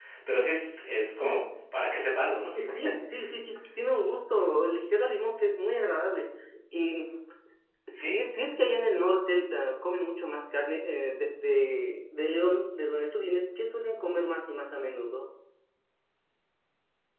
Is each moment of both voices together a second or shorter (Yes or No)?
Yes